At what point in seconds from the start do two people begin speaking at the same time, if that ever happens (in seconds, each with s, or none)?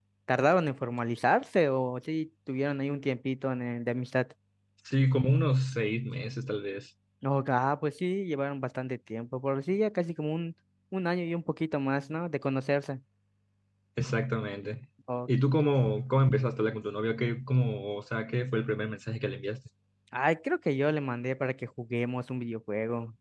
none